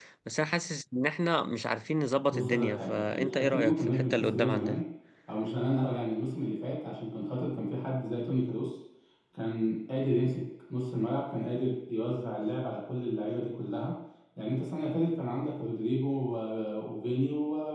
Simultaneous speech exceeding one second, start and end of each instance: 2.3-4.8

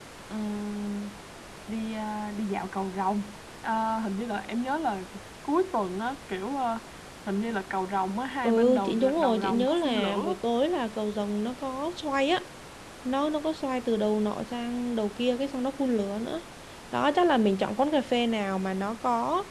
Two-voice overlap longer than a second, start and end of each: 8.4-10.3

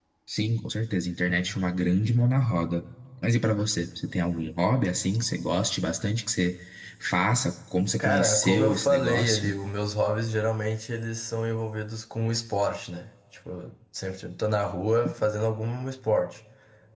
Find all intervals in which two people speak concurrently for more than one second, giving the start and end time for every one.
8.0-9.5

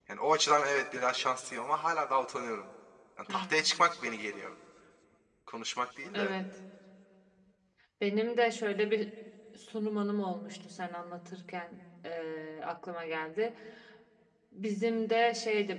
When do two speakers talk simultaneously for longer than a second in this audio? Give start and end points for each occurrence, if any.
none

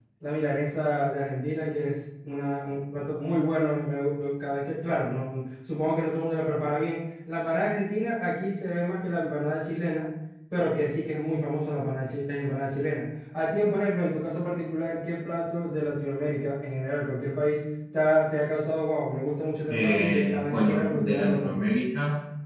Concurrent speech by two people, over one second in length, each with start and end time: 19.7-21.6

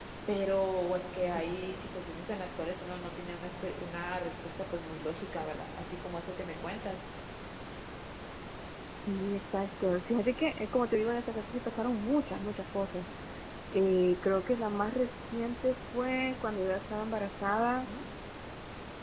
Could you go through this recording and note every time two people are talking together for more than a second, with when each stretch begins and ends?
none

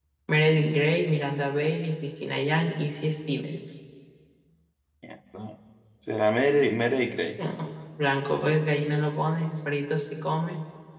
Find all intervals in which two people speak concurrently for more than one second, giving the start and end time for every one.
none

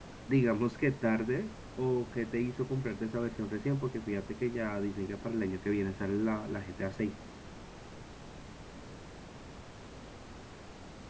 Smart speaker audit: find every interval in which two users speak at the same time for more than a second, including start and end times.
none

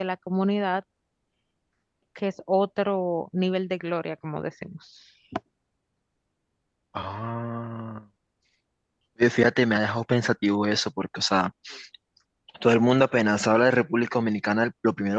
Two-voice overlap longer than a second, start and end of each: none

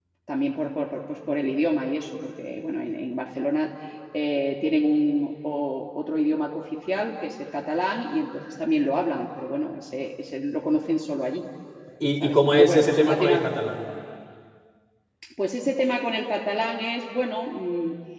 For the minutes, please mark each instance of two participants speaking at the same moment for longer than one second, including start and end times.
12.2-13.4

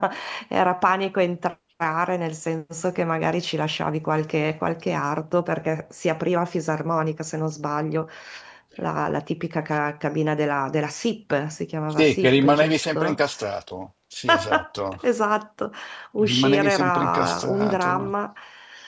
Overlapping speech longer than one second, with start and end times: 11.9-13.2, 16.2-18.1

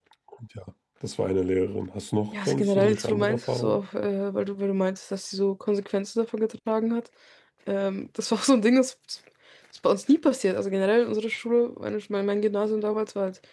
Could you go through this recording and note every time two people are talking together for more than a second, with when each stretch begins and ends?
2.3-3.8

